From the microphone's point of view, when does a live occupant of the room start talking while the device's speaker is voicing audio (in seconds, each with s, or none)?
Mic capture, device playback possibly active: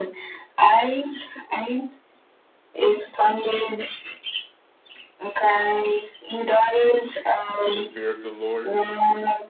7.6 s